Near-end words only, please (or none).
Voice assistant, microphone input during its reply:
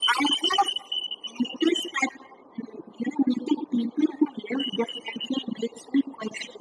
none